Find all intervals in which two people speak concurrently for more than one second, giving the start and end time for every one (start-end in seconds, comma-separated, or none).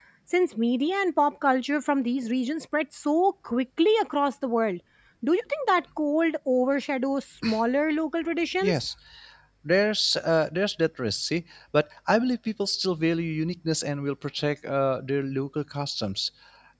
none